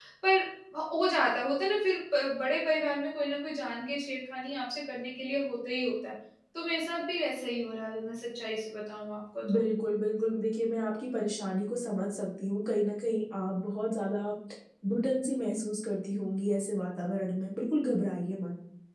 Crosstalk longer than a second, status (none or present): none